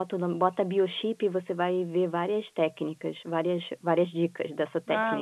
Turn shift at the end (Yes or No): Yes